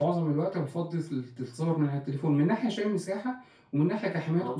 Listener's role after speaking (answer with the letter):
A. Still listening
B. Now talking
A